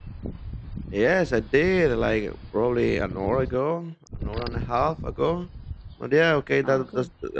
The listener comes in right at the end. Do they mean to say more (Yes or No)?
No